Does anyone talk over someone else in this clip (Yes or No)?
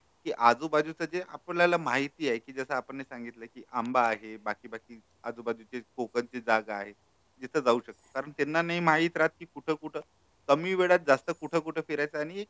No